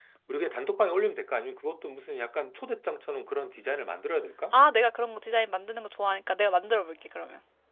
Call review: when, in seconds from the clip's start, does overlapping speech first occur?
none

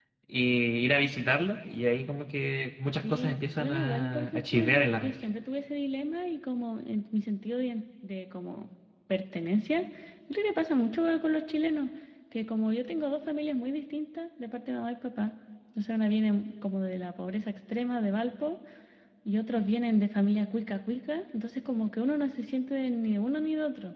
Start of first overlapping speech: 3.0 s

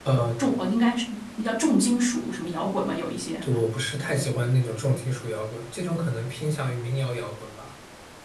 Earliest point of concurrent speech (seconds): none

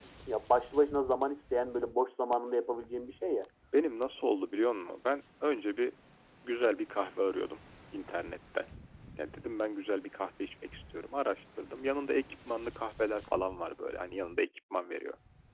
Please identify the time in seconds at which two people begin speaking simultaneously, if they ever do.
none

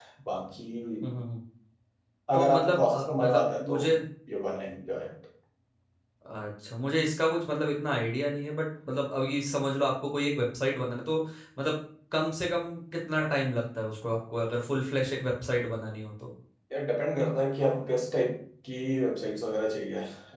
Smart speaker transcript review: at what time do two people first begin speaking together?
2.3 s

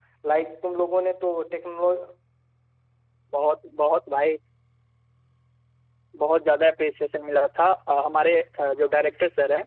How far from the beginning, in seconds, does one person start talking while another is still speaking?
none

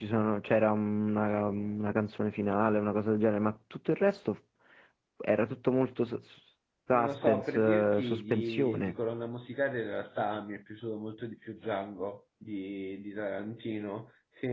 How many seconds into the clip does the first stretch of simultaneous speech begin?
6.9 s

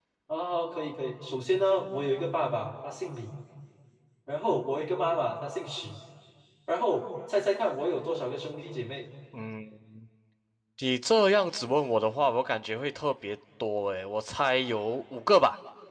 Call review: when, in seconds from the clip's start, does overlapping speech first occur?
none

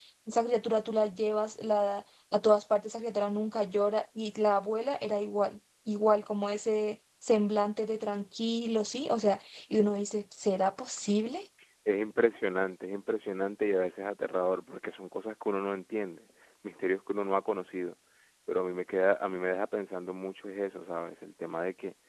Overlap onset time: none

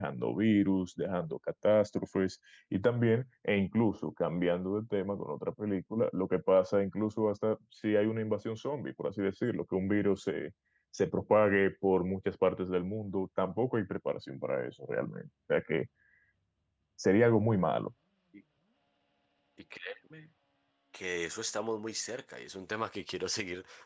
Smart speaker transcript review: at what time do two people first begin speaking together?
none

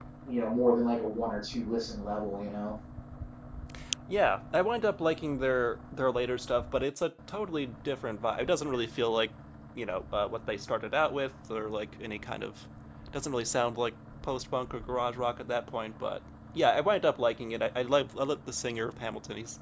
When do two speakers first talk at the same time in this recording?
none

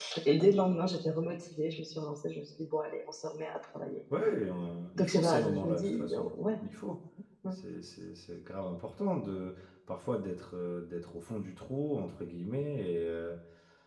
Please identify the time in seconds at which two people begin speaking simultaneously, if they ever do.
5.0 s

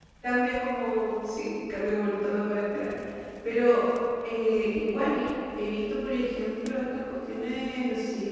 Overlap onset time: none

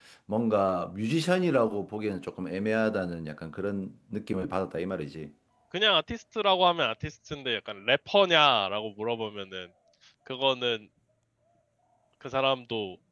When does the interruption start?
none

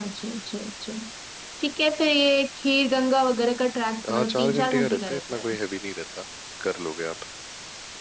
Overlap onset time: 4.0 s

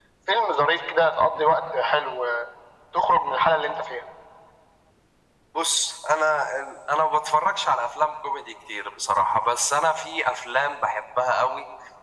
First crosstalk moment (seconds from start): none

